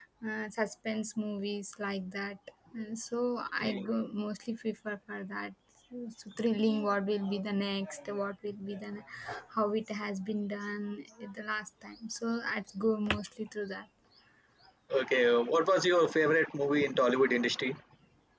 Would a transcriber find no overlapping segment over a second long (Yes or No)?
Yes